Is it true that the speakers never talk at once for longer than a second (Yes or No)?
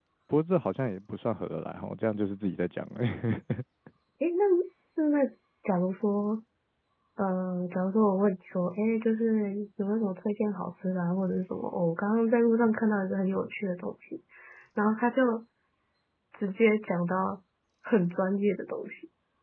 Yes